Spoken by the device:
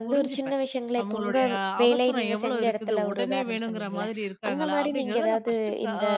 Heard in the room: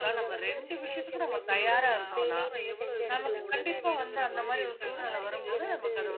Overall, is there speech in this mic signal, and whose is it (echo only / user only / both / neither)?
both